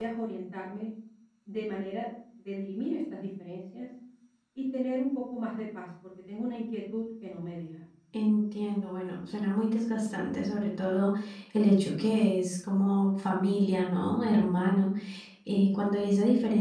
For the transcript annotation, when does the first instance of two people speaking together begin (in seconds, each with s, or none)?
none